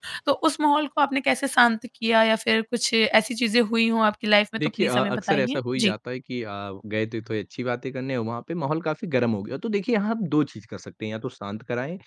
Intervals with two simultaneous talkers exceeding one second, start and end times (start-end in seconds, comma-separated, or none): 4.6-5.9